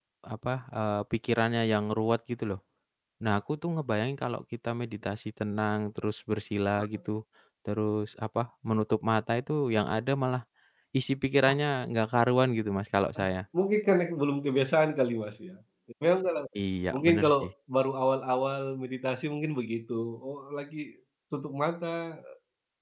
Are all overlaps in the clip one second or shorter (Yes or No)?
Yes